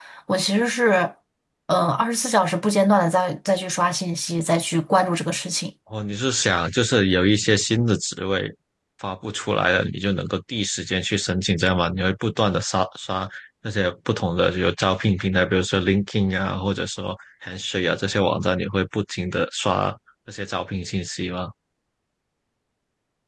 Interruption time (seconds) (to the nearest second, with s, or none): none